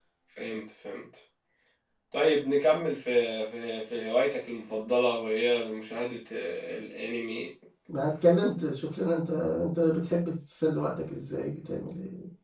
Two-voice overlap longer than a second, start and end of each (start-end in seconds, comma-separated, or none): none